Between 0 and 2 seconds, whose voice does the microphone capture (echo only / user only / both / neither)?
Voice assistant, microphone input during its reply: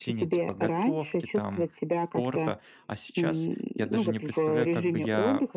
both